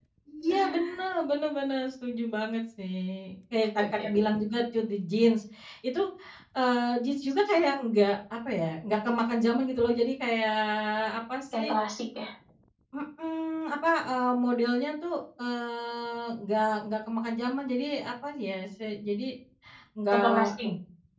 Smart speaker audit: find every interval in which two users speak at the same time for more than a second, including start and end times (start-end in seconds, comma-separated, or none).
none